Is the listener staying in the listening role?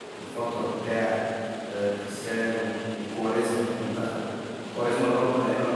Yes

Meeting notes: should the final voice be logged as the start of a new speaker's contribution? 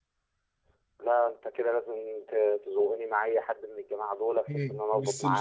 Yes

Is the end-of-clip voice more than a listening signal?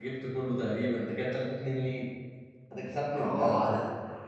Yes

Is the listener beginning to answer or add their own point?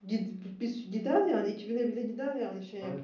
No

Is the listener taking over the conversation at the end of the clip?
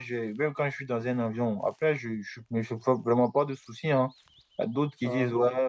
No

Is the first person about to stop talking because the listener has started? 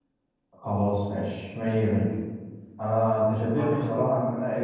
No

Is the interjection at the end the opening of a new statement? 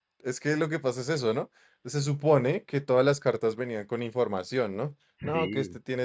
No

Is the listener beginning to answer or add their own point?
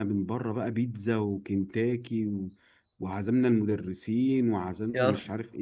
No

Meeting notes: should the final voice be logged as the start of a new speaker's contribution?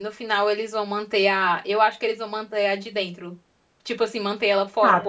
No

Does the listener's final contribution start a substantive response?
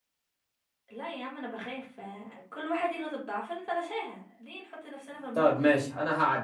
Yes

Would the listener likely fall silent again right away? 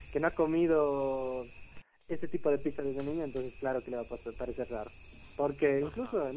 Yes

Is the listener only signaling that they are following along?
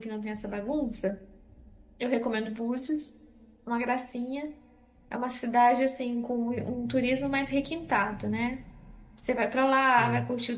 Yes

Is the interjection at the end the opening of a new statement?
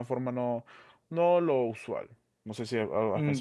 Yes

